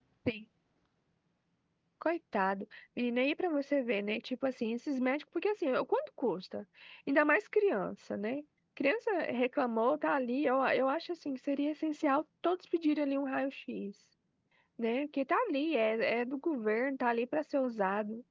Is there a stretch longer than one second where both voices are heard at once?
No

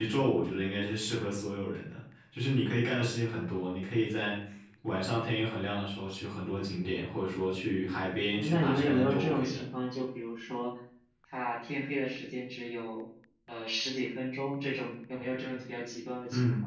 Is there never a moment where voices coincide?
No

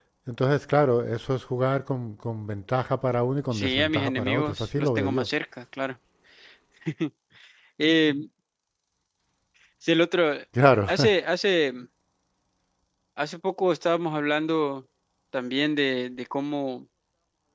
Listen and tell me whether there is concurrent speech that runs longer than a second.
Yes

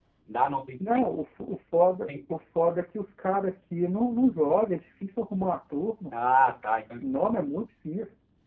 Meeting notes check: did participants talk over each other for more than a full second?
No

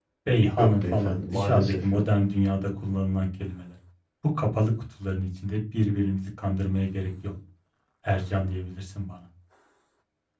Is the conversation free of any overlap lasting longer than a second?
No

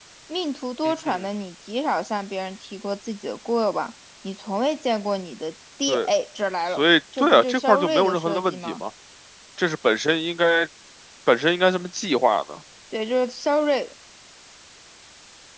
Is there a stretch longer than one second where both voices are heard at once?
Yes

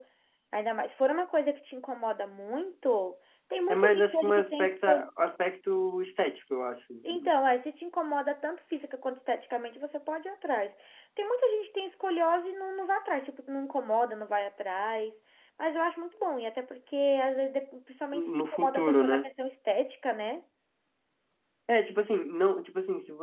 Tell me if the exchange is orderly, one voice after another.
No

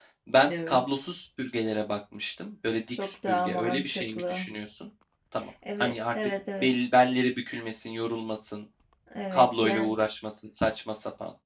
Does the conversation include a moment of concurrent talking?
Yes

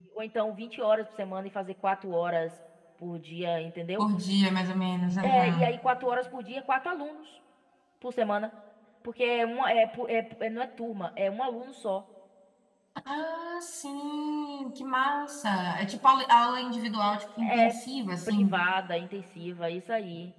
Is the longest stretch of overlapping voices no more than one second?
Yes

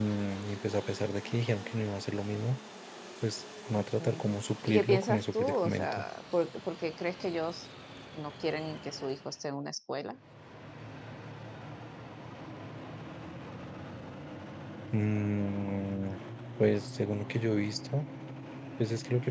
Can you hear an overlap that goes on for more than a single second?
Yes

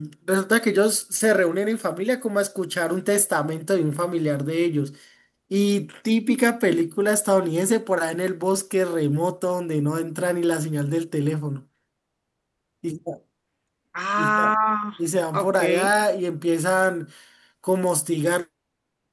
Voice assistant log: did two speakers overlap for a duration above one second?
No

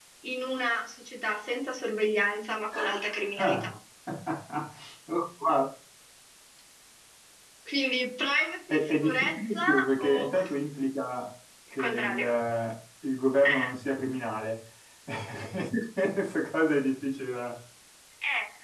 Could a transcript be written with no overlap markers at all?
No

